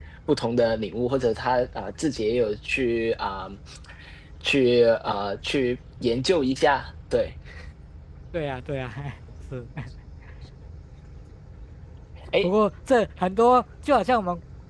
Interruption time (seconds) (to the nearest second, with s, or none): none